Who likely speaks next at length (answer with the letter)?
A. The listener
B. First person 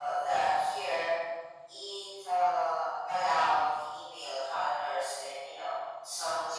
A